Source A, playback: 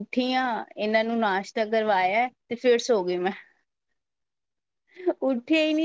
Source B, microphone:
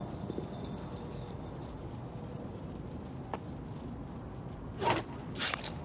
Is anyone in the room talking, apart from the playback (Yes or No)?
No